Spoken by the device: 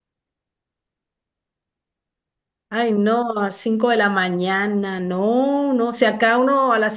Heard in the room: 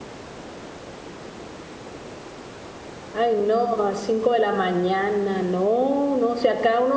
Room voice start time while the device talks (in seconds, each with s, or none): none